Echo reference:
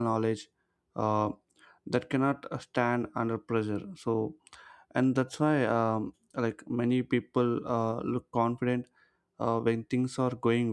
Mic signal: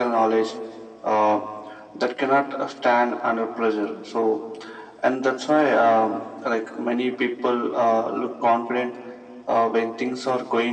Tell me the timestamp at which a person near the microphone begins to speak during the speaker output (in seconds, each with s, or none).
none